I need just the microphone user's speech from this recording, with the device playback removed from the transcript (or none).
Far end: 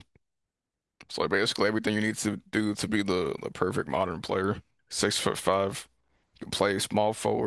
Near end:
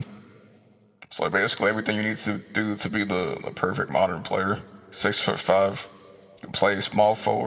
none